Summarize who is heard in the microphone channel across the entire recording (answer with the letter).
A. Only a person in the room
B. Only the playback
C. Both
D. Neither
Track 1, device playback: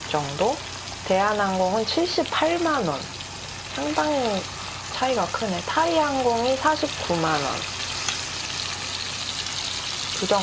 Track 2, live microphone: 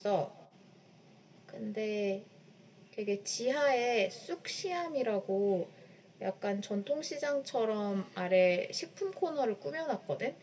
A